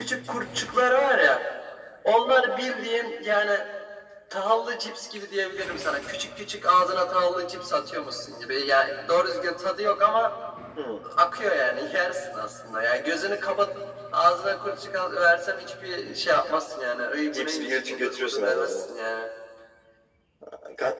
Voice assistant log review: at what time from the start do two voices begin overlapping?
17.3 s

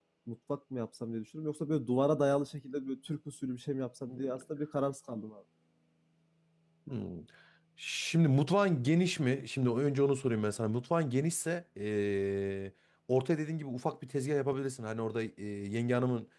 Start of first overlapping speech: none

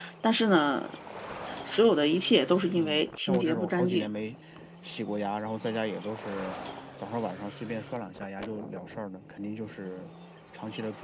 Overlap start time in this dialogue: 2.8 s

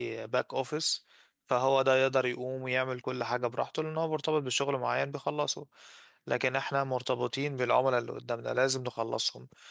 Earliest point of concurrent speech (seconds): none

